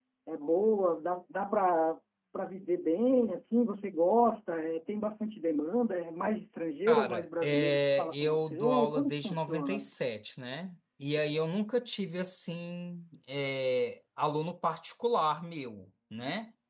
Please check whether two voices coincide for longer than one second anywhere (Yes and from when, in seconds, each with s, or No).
Yes, from 6.9 s